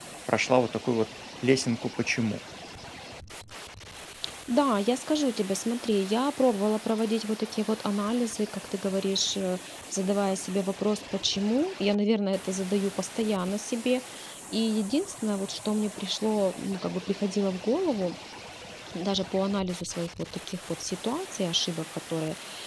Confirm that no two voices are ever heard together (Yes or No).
Yes